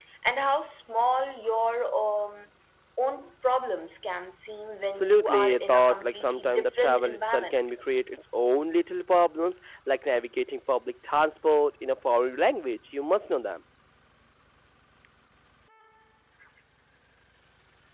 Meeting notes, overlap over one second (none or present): present